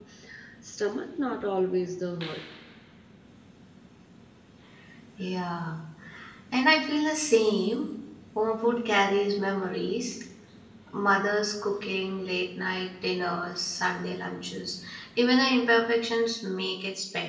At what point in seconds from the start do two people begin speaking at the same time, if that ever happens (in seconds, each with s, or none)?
none